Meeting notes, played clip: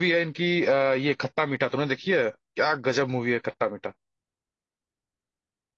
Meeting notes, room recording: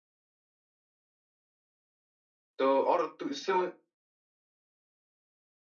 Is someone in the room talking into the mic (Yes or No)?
Yes